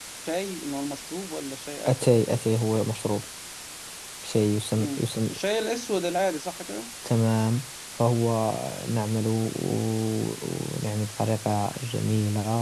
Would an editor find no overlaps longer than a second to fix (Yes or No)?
Yes